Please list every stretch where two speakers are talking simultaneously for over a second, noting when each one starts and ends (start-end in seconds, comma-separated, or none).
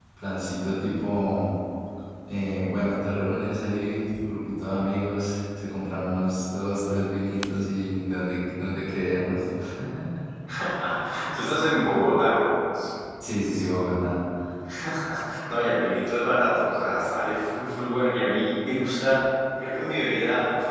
none